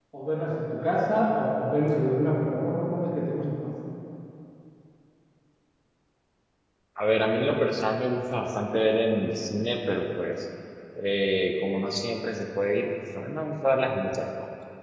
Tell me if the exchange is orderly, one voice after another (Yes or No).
Yes